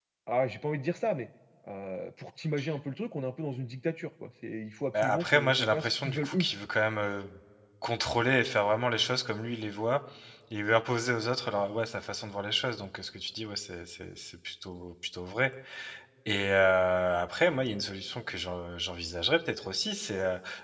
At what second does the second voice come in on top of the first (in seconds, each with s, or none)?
4.9 s